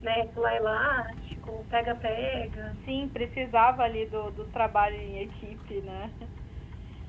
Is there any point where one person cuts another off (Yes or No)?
No